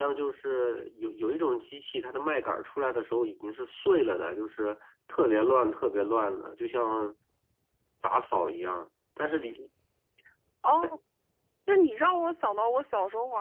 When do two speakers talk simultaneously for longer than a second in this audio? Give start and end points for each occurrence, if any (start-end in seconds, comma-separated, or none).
none